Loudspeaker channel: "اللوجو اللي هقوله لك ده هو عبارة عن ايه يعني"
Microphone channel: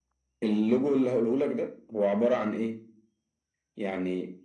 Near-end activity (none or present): none